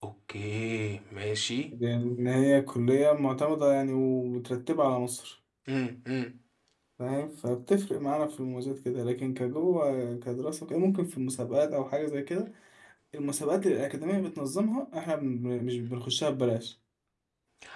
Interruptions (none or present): none